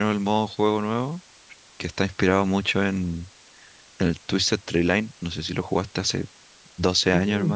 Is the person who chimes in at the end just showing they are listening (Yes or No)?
No